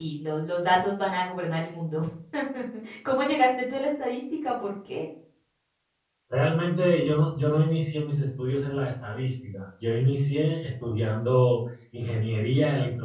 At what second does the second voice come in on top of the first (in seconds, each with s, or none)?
none